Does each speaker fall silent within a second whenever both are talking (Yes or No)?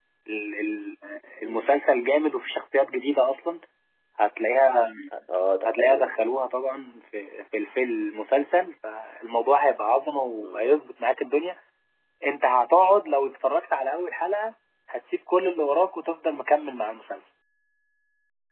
Yes